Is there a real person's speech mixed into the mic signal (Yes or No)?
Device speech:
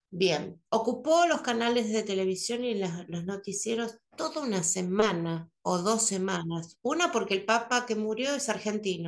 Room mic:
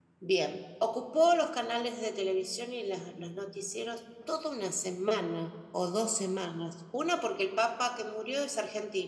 No